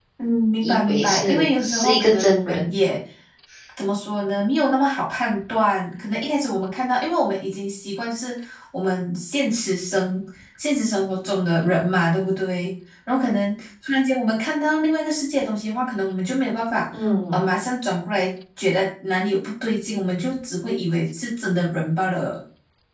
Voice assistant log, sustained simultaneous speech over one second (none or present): present